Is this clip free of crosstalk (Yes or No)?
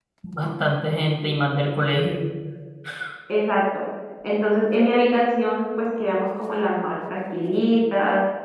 Yes